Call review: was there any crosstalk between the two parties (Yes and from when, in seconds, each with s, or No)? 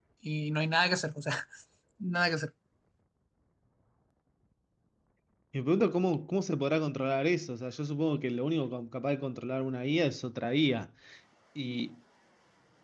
No